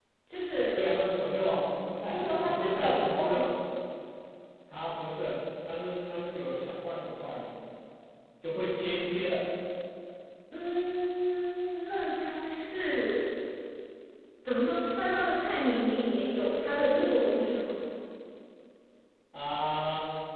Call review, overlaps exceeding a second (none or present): present